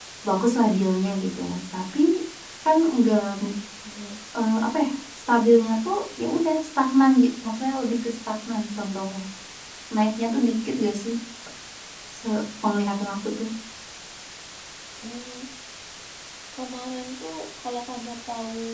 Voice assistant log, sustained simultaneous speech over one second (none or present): none